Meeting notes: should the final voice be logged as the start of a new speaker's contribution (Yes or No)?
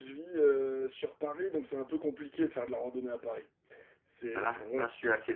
Yes